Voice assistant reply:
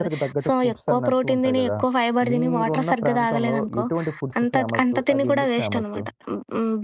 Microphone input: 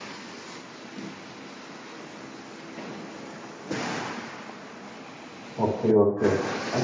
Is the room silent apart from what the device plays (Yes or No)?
No